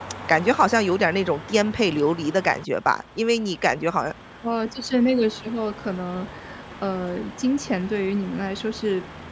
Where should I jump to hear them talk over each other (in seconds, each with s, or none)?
none